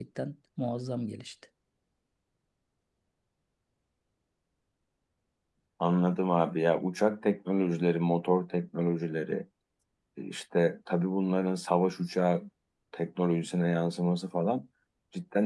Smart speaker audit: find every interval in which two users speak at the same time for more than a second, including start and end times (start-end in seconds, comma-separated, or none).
none